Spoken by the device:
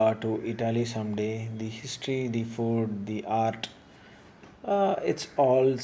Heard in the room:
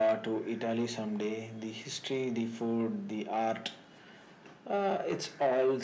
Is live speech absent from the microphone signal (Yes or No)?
Yes